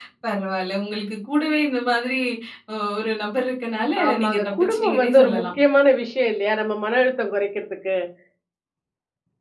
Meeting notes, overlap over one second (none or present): present